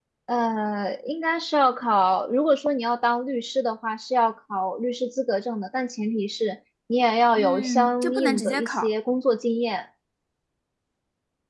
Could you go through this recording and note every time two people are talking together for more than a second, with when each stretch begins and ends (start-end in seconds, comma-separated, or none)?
7.4-8.9